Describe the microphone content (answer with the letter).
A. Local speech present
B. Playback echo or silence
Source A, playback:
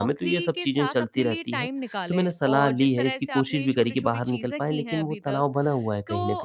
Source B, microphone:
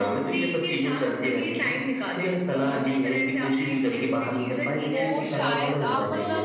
A